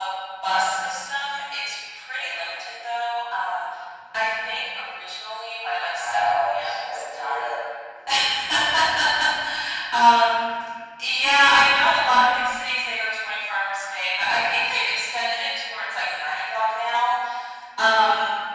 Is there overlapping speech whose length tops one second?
Yes, from 6.0 s

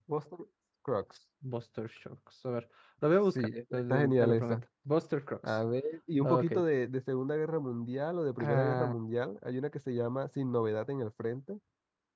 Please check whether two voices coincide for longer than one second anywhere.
Yes, from 3.4 s

